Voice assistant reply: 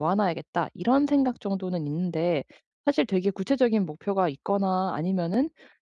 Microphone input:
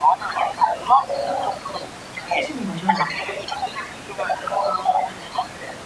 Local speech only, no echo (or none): 쓰시는 거죠.